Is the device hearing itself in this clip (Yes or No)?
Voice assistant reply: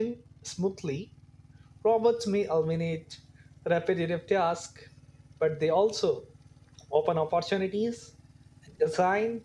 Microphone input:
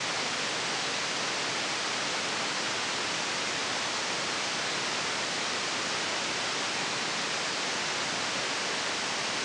No